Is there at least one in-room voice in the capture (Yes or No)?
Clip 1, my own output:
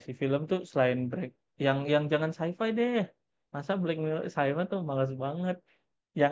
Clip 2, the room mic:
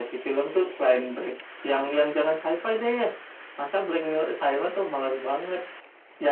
No